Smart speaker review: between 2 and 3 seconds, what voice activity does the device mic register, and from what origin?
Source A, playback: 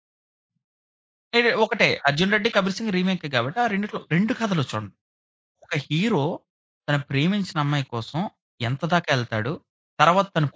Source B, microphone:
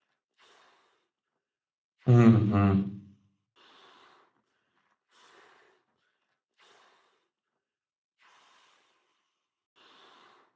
user only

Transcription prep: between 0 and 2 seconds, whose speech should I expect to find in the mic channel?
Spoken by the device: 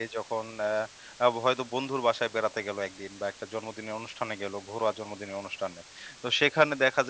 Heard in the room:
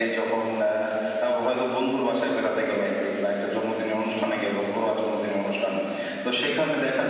echo only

